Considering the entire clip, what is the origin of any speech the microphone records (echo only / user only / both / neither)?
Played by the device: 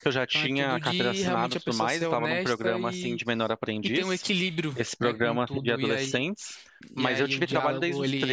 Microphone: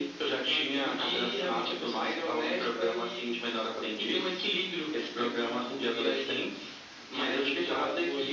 echo only